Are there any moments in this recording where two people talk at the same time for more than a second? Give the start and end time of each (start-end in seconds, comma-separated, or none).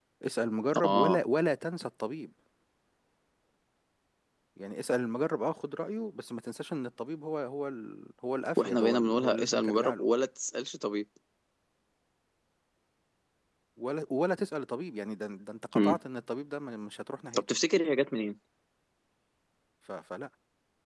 8.6-10.1